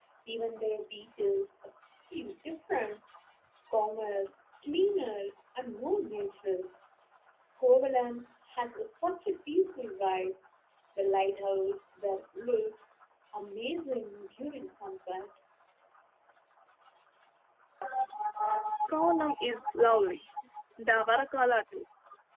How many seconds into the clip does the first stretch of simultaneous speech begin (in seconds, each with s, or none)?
none